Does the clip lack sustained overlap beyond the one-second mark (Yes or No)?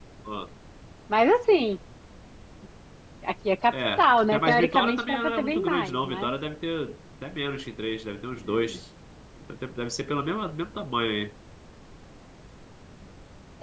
No